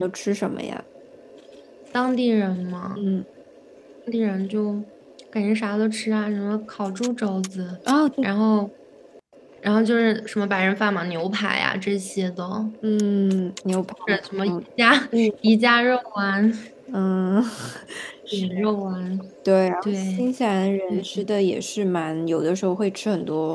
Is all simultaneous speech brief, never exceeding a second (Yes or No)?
Yes